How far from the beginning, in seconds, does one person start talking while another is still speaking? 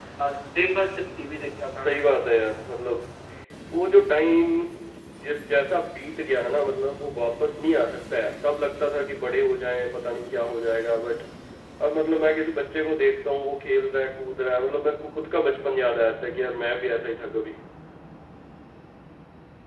none

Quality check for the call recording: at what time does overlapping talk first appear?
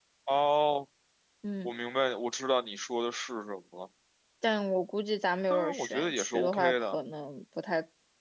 5.5 s

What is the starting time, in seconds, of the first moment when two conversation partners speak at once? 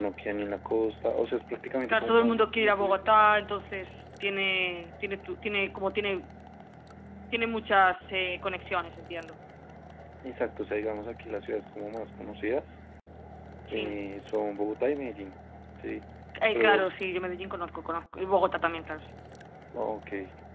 1.9 s

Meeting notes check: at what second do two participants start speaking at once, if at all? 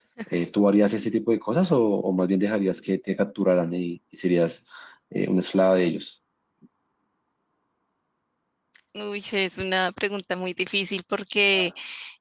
none

